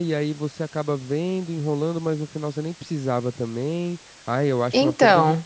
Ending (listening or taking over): listening